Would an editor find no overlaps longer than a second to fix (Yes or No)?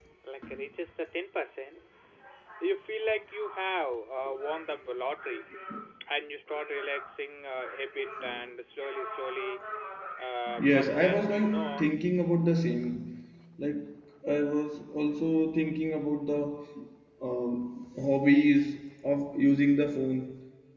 No